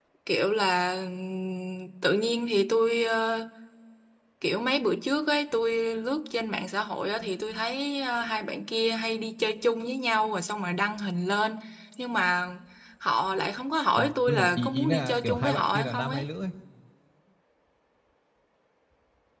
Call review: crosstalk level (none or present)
present